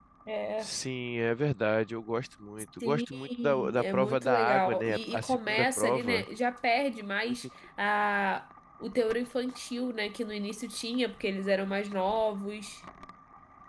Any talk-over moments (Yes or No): Yes